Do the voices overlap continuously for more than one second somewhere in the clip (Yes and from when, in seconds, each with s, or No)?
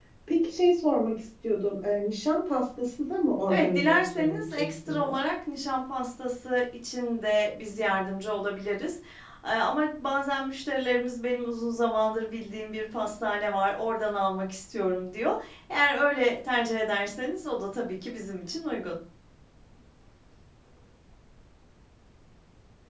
Yes, from 3.5 s